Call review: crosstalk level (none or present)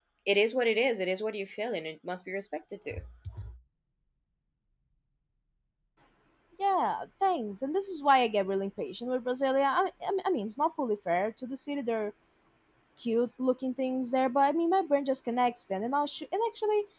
none